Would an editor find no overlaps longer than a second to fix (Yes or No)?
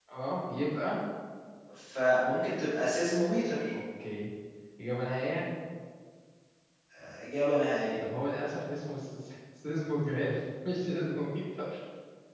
Yes